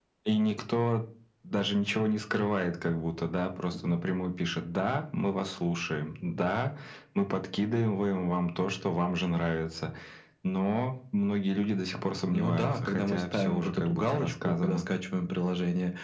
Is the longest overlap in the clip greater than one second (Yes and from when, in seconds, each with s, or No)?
Yes, from 12.3 s